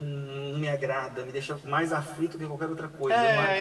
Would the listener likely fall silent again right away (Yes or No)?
No